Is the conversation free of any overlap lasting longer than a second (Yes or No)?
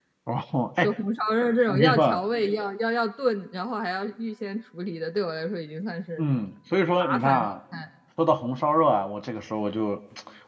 Yes